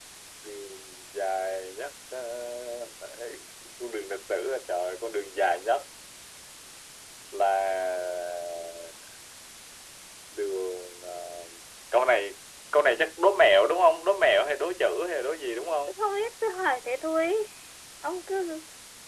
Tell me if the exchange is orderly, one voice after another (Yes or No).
Yes